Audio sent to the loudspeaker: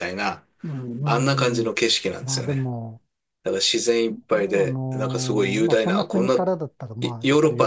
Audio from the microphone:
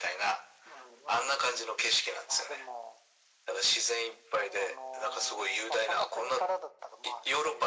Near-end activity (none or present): none